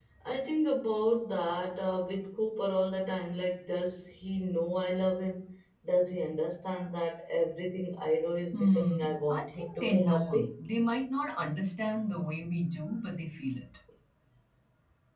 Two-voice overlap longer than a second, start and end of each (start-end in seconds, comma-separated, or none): 8.5-10.5